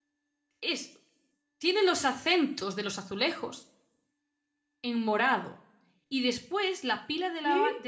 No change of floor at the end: Yes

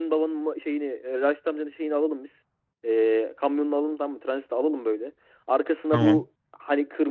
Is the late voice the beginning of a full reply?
No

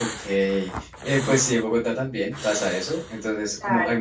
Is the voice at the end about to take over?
No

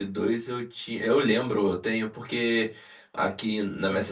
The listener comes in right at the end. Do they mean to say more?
No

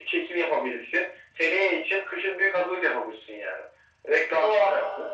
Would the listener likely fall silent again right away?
Yes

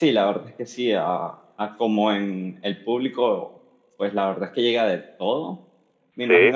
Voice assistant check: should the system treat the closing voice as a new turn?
No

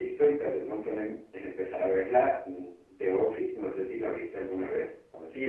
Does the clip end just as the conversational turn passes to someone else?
Yes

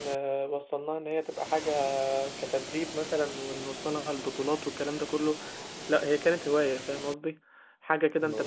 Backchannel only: Yes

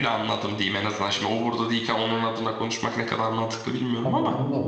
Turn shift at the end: Yes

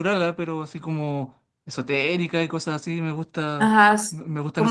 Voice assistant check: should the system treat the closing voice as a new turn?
Yes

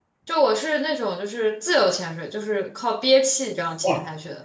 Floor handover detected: Yes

